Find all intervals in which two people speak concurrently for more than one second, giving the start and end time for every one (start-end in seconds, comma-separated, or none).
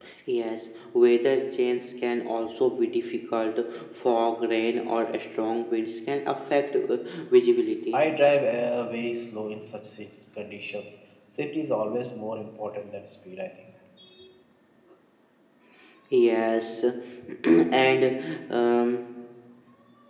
none